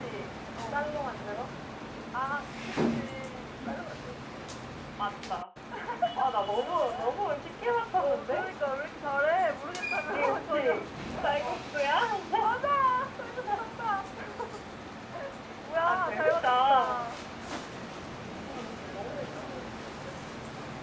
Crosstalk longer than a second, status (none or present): present